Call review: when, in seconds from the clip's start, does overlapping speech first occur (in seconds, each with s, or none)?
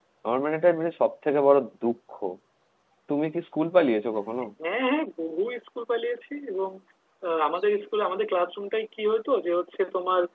none